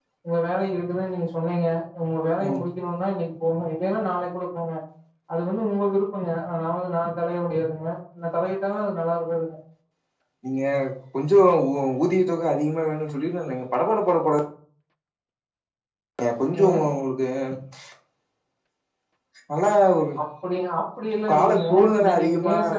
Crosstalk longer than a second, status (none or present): present